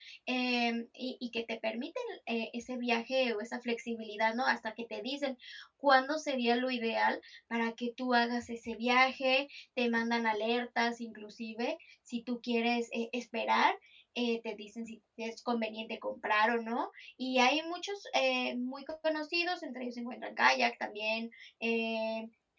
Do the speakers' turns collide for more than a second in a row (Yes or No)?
No